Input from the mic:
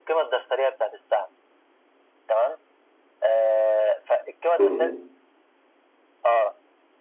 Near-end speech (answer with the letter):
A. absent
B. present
B